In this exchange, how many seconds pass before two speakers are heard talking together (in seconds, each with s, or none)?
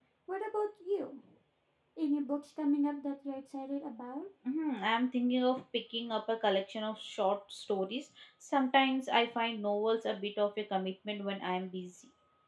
none